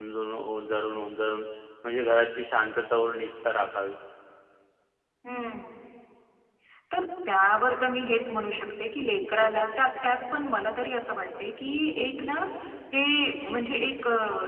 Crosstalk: none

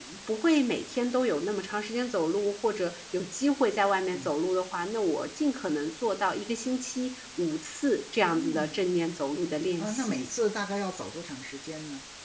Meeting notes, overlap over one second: none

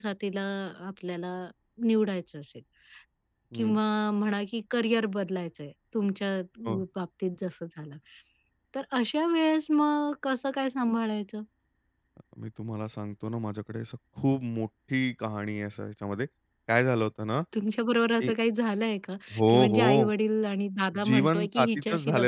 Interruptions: present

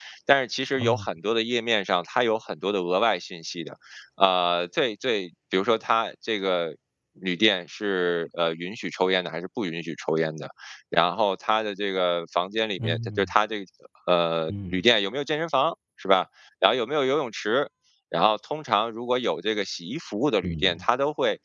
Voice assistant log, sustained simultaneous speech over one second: none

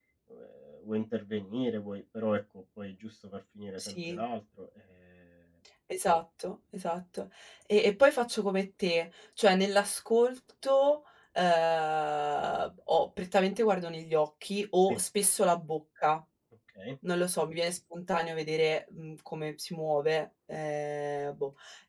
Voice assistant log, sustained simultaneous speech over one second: none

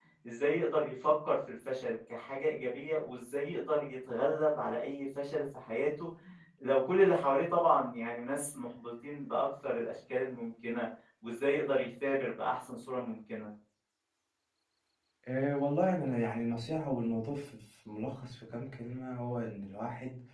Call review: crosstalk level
none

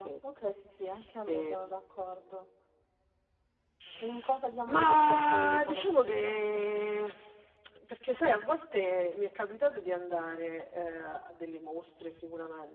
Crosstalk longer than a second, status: present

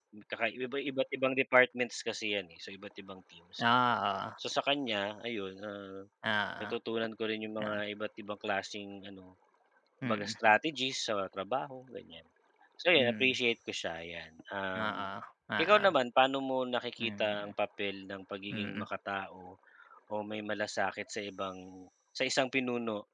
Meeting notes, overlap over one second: none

